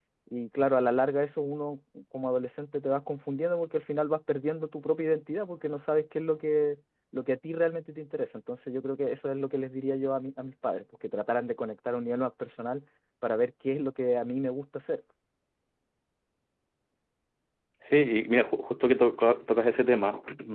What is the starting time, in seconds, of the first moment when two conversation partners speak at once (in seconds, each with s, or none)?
none